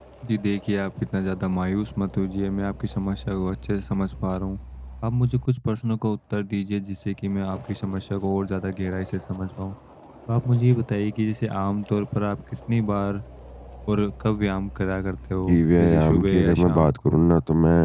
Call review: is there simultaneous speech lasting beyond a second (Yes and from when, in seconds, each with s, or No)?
Yes, from 15.4 s